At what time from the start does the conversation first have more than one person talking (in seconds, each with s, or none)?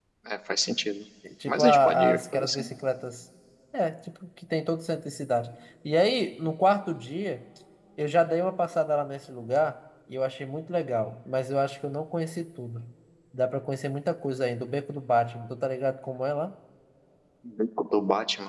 1.5 s